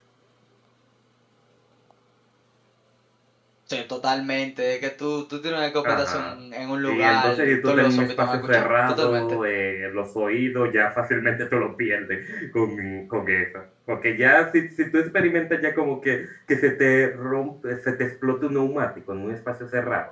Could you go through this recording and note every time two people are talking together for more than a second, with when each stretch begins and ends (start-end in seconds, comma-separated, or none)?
6.8-9.4